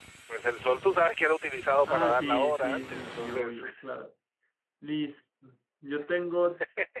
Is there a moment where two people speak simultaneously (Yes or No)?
Yes